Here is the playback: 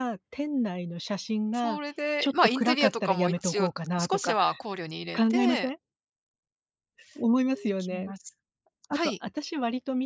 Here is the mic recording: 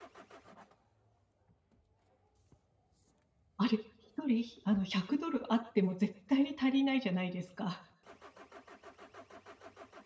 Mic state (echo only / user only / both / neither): user only